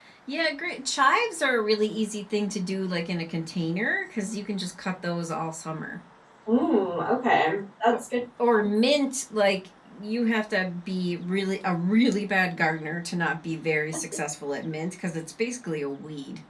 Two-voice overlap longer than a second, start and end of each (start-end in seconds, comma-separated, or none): none